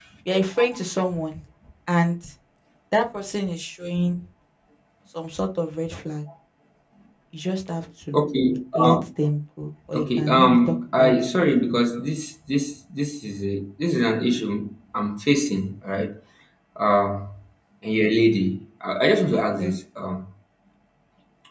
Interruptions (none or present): present